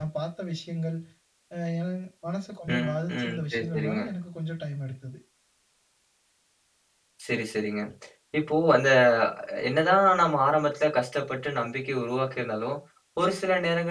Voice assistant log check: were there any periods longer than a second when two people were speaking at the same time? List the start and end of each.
2.7-4.0

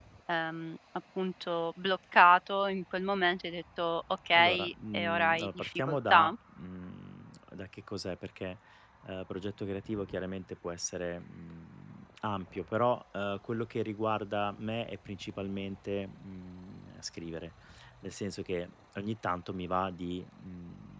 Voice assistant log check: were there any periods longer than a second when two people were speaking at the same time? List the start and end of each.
4.3-6.3

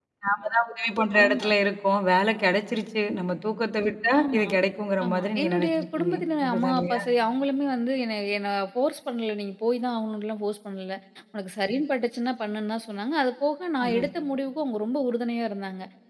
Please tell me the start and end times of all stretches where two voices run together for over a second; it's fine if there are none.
5.0-7.0

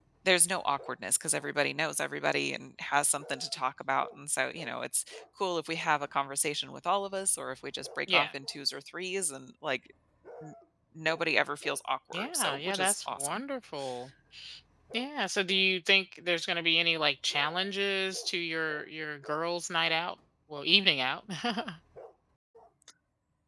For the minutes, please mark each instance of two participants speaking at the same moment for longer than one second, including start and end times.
12.1-13.4

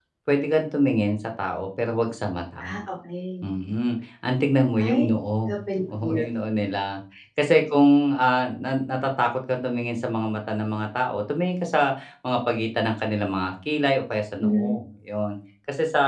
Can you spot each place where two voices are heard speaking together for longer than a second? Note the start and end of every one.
none

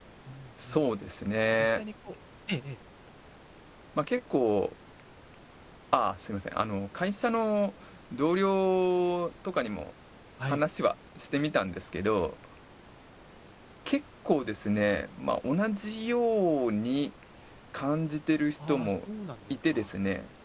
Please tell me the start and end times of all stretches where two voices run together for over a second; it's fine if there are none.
none

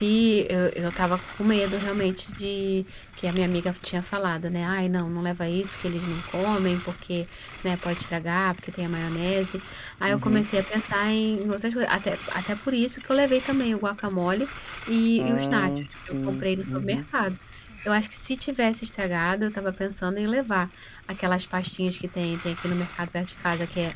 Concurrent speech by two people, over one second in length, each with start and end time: 15.2-17.0

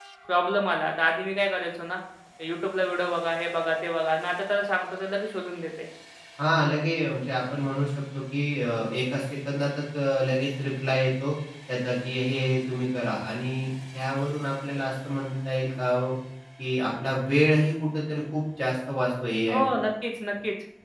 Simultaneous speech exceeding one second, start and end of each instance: none

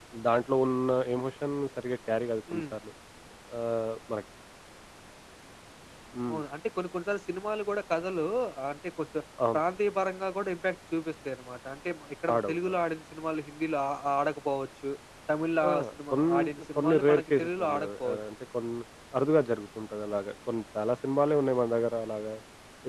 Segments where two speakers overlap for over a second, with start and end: 16.8-18.2

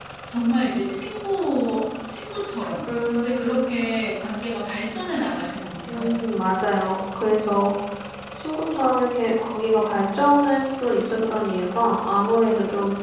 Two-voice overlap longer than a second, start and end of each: none

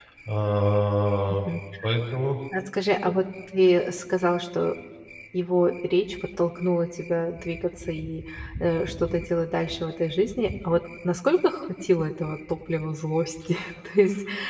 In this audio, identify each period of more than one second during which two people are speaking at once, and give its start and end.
none

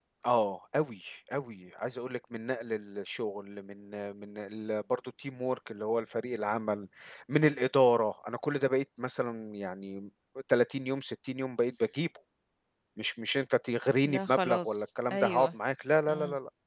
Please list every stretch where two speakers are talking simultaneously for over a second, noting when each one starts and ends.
14.0-15.5

